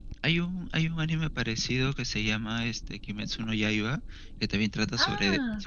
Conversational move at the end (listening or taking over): listening